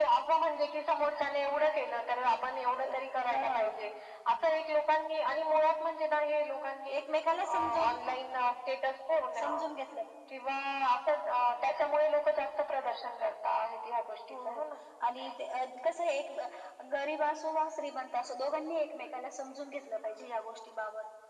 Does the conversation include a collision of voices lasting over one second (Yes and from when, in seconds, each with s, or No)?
No